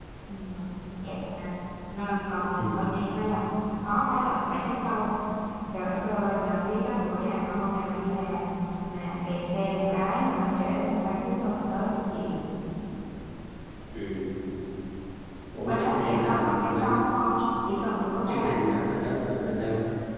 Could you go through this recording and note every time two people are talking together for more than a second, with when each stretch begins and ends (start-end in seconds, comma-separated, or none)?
15.7-17.0